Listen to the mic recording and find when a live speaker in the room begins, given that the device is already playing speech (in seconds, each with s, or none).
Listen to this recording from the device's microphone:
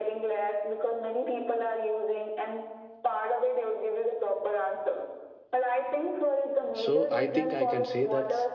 6.7 s